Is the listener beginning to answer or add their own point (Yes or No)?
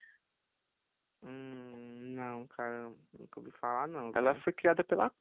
Yes